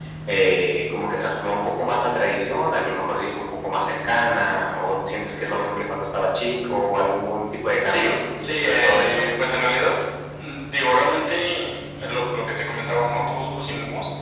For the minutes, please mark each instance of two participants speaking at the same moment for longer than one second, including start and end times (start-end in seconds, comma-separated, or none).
7.8-9.2